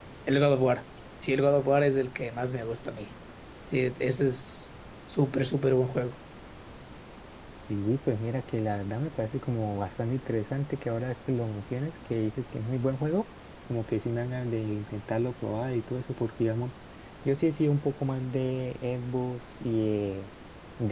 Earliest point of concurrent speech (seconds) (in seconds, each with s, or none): none